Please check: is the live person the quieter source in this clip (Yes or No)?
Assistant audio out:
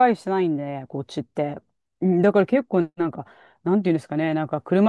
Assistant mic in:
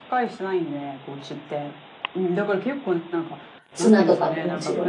No